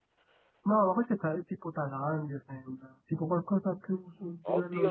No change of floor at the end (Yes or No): No